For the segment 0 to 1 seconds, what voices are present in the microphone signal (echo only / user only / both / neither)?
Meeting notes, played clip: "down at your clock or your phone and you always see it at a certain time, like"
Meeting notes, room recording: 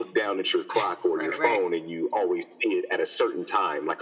both